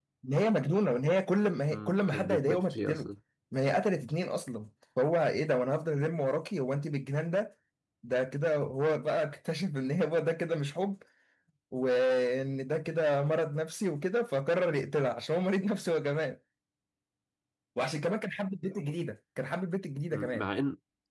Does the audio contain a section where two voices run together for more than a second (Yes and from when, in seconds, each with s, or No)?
Yes, from 1.7 s